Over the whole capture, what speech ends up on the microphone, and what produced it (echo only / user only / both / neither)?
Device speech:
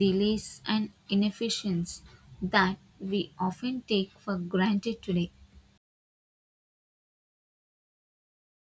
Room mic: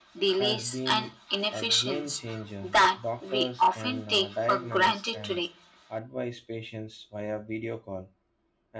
both